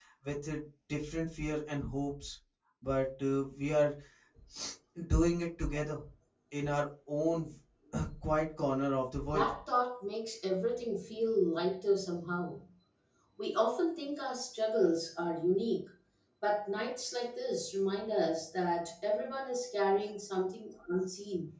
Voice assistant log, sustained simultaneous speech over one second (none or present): none